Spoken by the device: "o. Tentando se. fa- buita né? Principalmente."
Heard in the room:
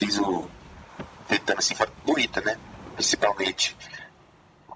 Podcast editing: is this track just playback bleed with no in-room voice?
Yes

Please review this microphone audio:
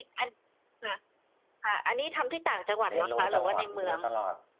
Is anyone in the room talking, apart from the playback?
Yes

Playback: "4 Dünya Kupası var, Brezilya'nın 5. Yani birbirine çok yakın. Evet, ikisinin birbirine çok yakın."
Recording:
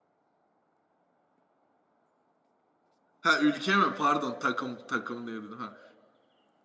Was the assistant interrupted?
Yes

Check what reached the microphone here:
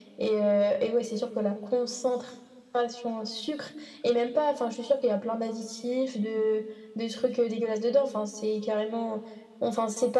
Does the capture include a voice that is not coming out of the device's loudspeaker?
No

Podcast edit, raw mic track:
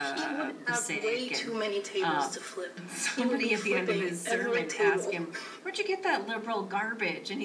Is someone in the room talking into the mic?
Yes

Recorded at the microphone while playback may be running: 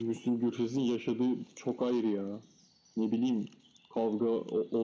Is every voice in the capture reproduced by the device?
Yes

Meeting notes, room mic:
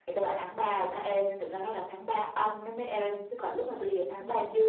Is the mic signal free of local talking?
Yes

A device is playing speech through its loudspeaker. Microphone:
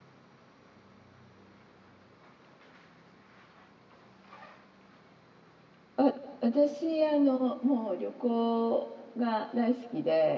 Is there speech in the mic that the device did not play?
Yes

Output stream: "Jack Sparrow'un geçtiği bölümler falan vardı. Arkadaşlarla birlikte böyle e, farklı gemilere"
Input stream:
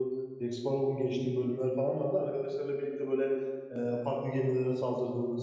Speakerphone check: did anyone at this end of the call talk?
No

